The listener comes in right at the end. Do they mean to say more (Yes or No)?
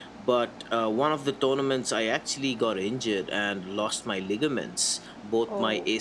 No